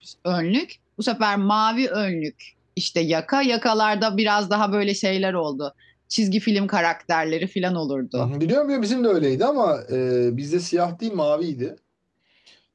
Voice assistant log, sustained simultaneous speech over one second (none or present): none